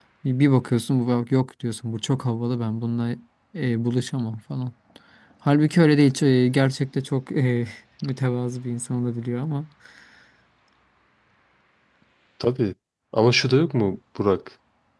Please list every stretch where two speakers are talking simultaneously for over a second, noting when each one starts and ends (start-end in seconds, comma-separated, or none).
none